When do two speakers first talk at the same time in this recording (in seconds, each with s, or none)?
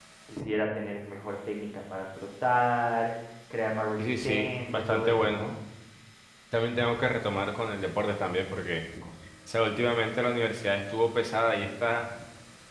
4.0 s